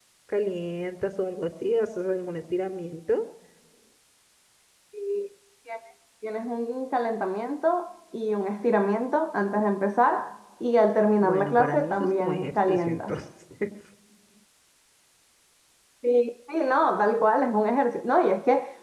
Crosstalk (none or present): present